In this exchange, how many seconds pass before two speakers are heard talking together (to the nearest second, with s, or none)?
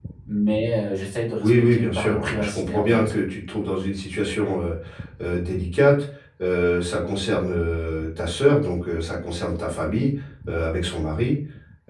1 s